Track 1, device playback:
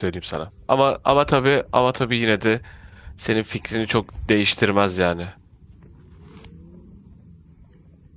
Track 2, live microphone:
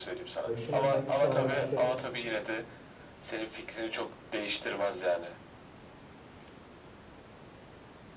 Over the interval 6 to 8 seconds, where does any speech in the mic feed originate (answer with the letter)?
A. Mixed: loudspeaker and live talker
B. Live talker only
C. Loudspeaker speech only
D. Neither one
D